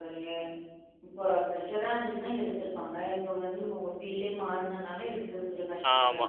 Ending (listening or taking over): taking over